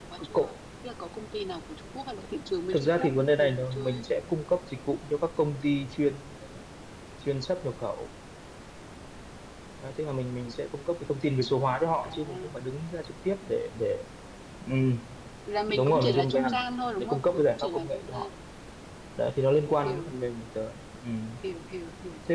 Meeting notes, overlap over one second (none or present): present